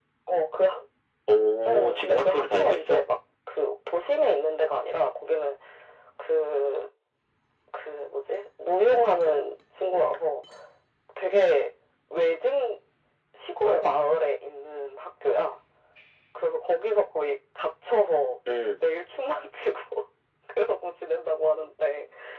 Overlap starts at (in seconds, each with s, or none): 1.7 s